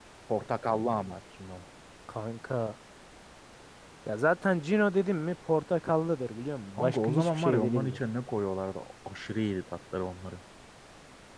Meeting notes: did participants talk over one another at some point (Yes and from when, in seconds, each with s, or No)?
Yes, from 6.8 s